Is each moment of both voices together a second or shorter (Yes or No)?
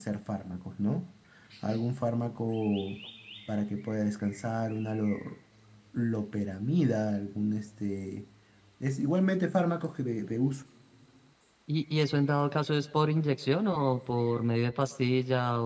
Yes